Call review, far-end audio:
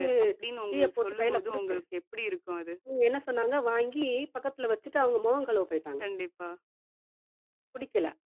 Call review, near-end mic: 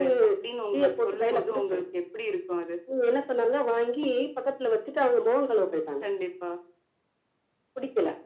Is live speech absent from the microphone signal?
Yes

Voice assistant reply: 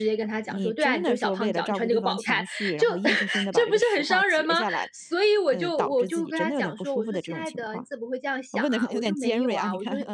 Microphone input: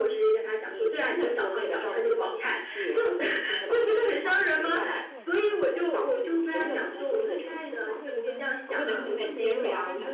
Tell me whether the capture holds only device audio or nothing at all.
No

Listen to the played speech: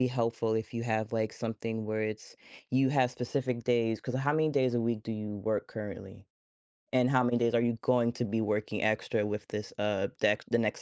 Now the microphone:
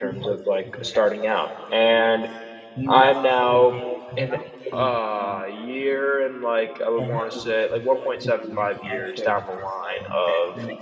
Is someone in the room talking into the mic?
Yes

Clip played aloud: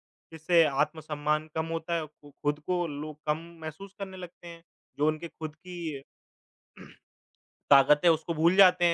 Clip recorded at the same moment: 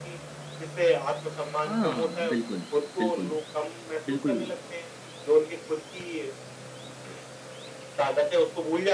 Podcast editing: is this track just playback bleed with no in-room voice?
No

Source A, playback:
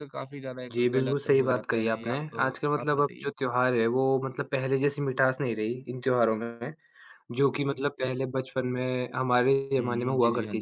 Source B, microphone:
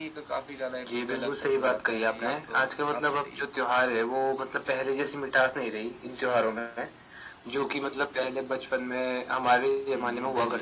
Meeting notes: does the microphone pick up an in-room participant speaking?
No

